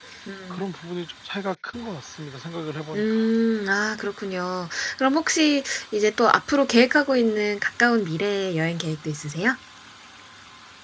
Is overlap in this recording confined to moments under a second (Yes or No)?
Yes